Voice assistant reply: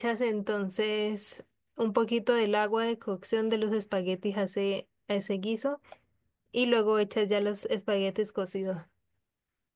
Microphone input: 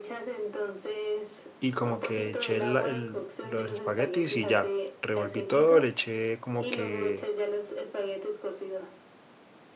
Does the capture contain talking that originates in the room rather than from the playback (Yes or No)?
Yes